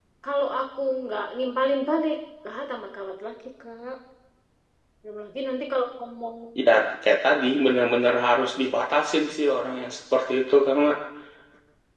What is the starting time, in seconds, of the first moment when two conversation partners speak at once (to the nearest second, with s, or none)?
none